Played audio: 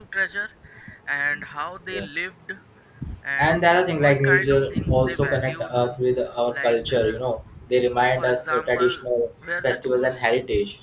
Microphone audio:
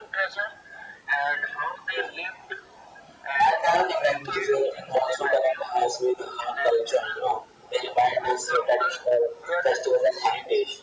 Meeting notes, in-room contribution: none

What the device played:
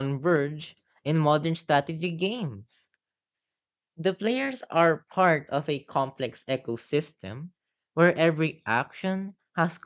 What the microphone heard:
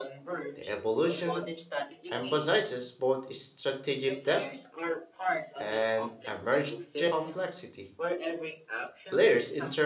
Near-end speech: present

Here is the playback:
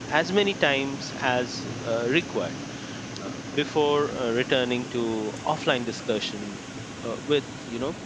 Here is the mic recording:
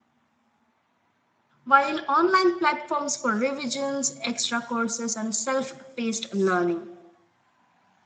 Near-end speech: present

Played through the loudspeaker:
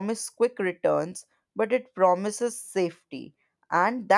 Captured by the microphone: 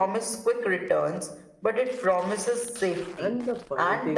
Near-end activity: present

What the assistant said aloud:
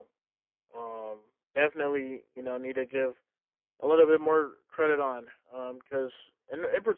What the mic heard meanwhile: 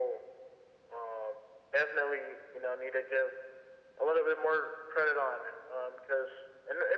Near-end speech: none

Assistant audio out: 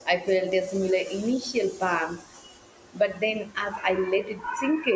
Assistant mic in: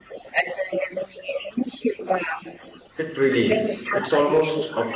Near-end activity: present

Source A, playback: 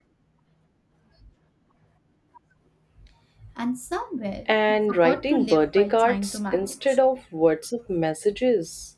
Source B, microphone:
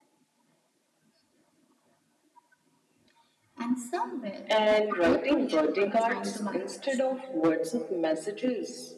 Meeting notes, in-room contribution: none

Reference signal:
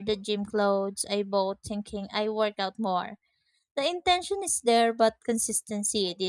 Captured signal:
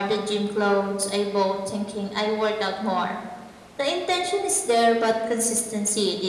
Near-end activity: none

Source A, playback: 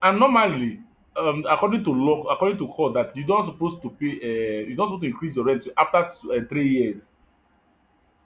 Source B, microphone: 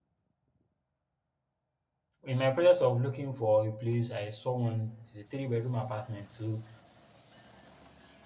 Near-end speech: present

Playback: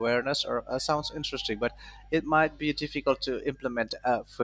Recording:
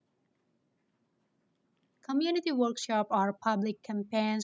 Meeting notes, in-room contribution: present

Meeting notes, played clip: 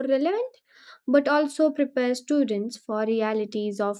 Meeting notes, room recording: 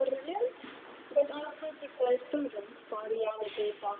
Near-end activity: none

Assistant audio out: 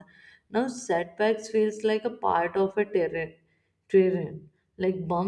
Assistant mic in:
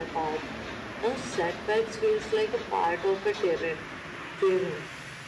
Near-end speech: none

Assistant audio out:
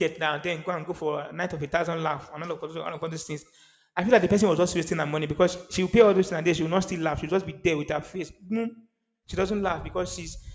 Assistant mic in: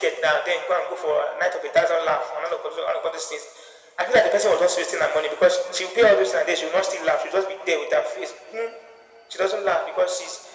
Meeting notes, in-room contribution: none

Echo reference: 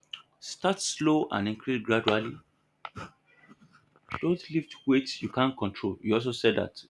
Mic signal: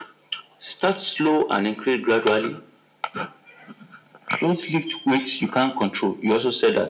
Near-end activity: none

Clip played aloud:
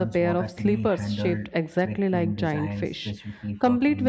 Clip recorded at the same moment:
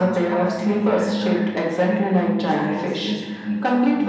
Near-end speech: none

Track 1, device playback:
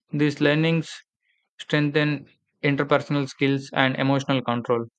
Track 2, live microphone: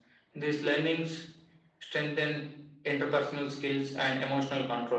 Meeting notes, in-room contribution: none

